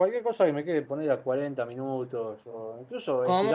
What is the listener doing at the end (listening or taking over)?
listening